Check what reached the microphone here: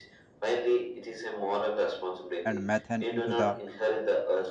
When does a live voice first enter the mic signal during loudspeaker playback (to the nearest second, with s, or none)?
2 s